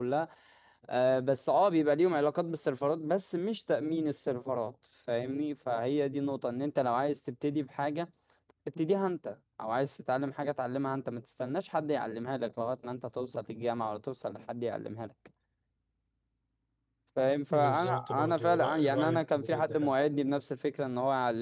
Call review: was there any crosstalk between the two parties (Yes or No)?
Yes